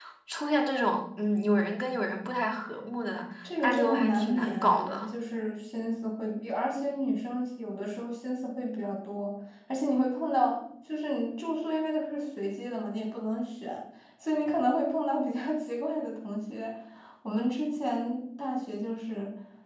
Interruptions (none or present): present